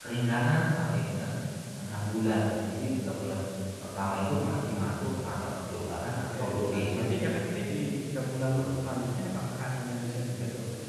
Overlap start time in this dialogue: 6.1 s

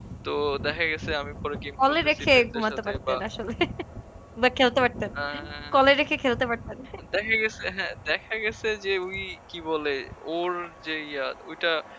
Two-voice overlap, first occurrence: 1.9 s

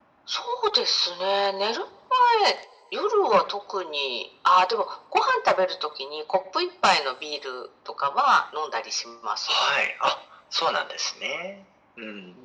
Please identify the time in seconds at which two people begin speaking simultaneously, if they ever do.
none

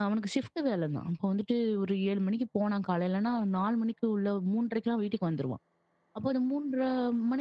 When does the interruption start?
none

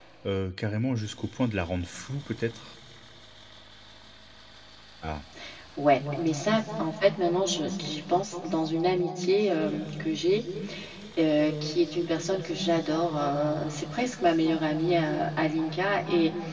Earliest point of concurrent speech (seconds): none

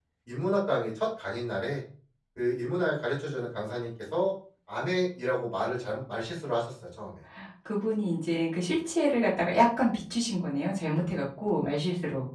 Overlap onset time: none

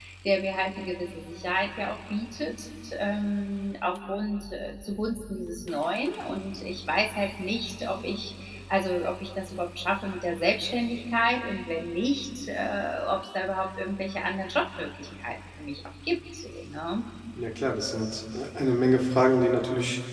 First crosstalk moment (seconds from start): none

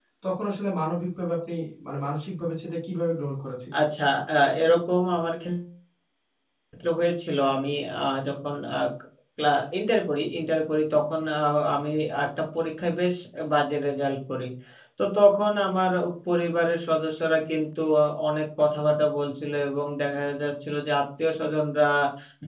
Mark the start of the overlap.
none

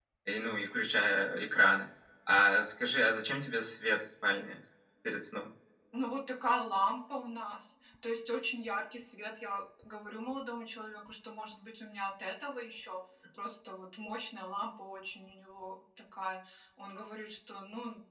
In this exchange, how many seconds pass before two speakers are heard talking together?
none

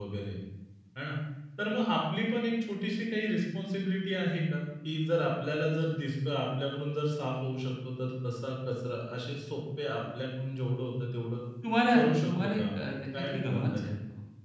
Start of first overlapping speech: 11.9 s

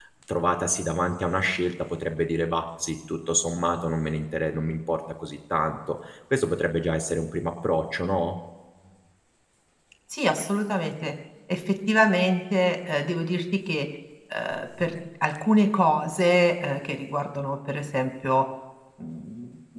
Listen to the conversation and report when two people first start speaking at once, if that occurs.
none

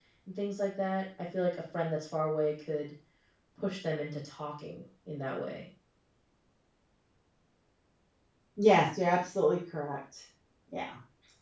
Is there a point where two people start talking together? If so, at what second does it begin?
none

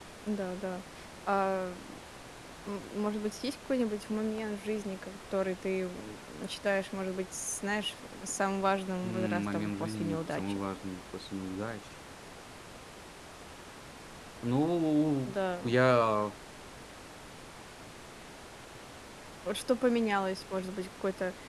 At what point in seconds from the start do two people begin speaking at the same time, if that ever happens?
9.0 s

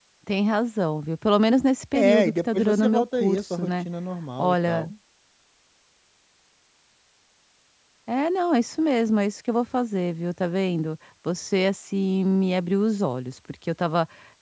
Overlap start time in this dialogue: 1.9 s

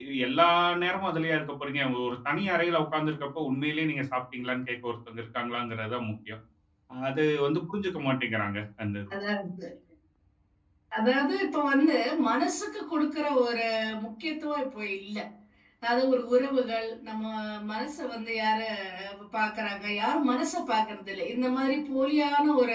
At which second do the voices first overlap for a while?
none

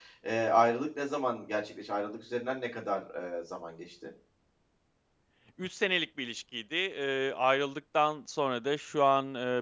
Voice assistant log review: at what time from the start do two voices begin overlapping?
none

